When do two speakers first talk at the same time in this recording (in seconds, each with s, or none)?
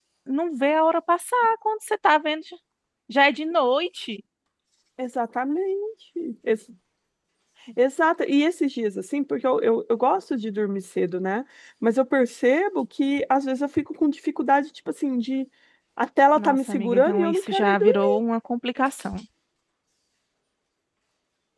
16.4 s